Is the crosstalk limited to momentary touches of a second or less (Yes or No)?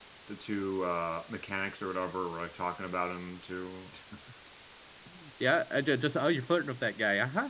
Yes